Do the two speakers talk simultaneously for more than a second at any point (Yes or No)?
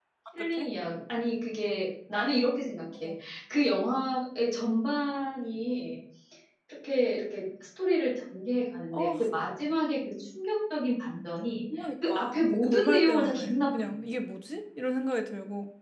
Yes